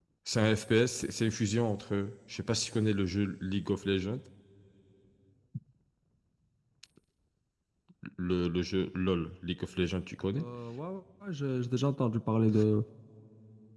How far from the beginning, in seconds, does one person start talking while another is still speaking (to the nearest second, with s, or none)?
none